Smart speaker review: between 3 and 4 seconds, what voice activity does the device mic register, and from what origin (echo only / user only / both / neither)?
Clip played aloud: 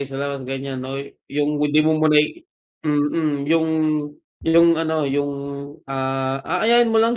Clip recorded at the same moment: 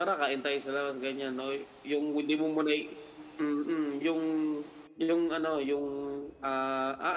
echo only